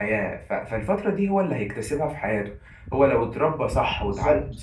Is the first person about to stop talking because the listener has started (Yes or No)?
No